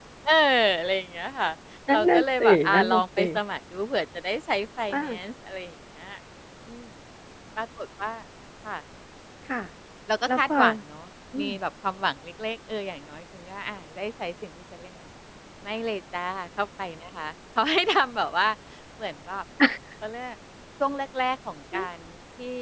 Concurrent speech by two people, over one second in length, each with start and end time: 1.9-3.2

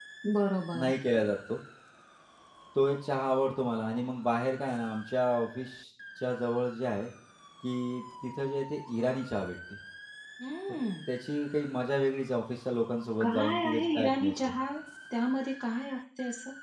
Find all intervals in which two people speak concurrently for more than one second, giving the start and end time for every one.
13.2-14.5

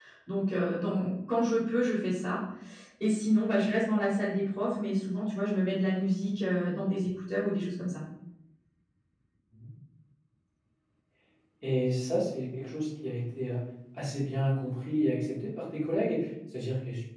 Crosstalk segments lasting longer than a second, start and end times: none

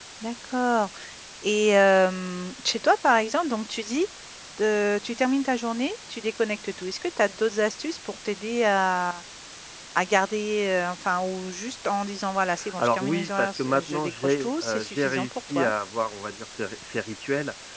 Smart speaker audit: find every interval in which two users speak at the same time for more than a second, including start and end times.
12.8-15.7

